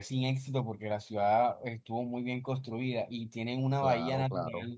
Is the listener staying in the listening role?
Yes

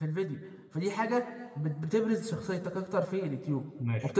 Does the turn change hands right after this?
Yes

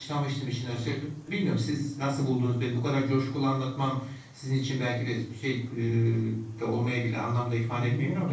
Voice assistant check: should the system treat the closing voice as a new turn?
Yes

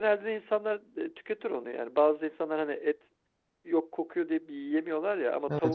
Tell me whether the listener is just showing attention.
Yes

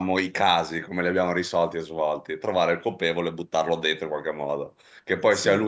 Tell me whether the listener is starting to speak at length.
No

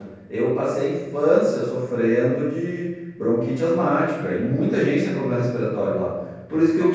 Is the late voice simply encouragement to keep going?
Yes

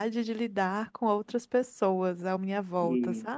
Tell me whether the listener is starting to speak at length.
Yes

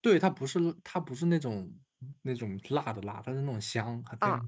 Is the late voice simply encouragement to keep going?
No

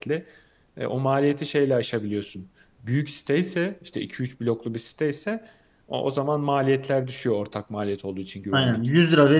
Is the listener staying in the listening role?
No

